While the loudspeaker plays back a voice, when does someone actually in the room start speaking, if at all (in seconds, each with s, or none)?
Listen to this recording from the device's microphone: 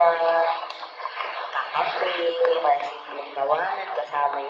none